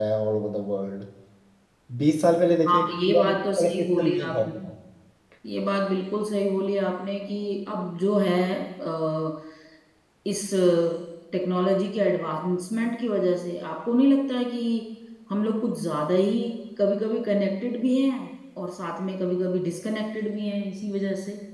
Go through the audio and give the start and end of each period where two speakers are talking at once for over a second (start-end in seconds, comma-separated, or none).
2.7-4.5